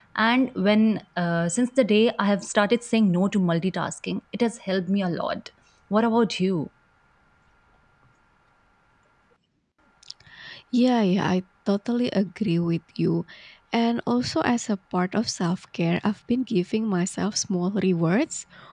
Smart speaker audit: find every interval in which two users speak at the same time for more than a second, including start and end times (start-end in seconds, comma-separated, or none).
none